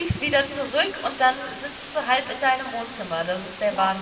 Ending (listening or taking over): taking over